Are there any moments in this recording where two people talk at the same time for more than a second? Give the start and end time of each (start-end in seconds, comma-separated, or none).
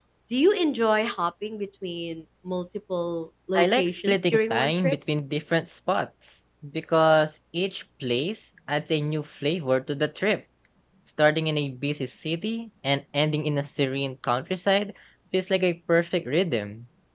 3.5-5.0